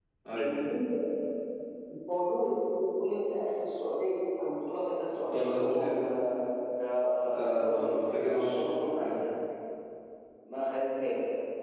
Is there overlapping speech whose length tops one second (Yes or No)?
Yes